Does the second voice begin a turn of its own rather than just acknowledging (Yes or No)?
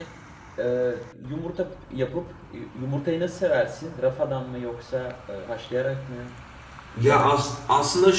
Yes